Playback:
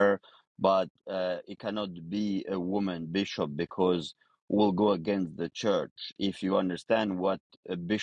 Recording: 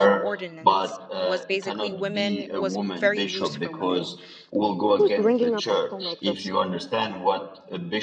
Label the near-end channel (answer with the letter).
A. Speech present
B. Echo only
A